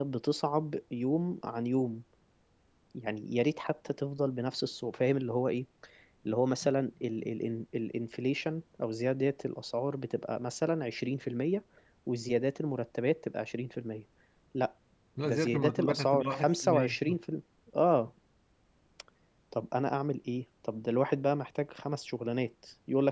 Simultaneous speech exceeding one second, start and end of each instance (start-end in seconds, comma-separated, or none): 15.2-16.9